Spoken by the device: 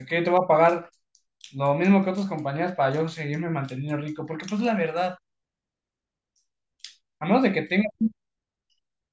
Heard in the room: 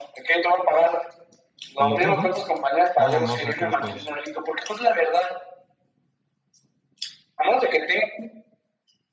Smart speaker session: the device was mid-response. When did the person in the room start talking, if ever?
1.8 s

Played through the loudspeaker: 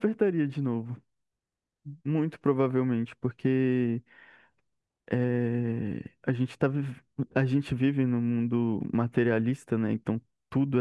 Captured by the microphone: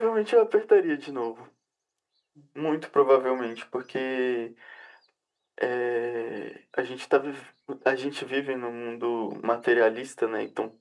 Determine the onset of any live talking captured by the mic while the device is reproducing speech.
none

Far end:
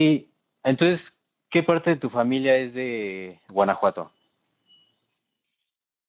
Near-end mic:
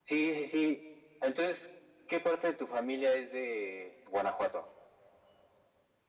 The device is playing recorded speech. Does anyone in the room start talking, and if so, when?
none

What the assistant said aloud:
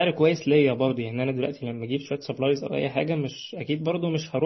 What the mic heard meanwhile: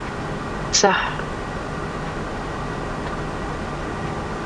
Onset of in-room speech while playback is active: 0.7 s

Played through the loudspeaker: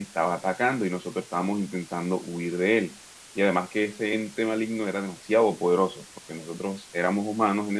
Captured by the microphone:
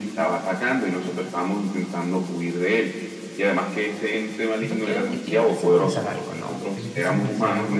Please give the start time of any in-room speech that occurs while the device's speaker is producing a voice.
4.6 s

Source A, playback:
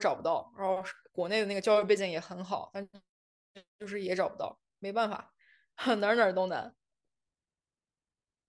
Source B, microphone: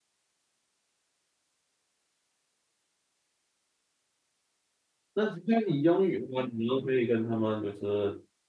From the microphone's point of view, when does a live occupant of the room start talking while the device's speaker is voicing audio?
5.1 s

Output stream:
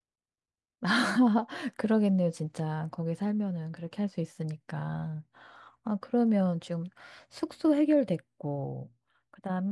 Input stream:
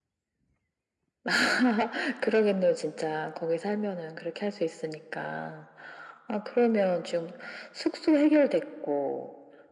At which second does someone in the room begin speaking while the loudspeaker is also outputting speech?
none

